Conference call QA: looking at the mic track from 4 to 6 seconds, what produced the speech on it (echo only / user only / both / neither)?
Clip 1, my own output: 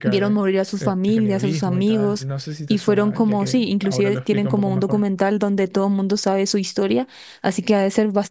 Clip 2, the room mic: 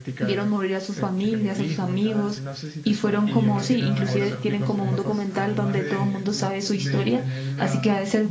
both